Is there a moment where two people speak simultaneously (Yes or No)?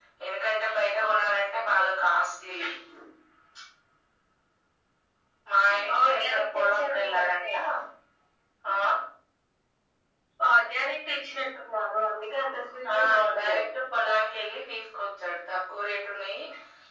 Yes